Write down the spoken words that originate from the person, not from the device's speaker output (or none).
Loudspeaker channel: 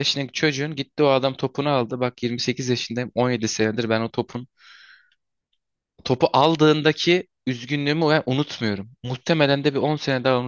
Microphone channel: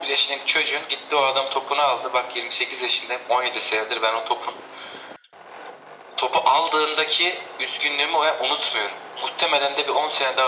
none